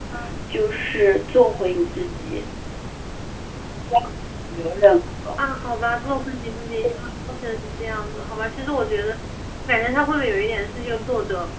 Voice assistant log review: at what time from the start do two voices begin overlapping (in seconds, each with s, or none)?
none